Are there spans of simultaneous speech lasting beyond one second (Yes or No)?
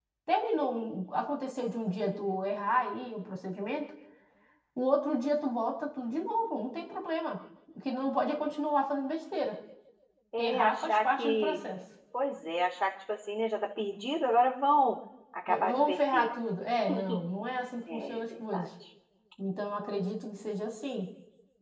Yes